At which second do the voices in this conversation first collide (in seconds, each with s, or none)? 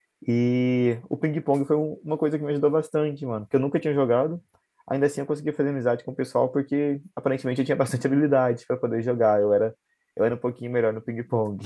none